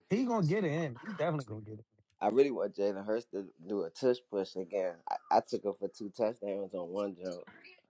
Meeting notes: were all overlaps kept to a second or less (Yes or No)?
Yes